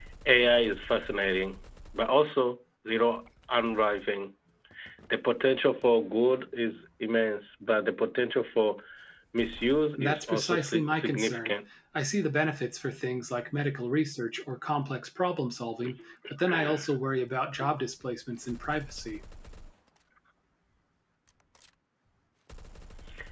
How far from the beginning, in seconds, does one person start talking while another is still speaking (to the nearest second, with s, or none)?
10 s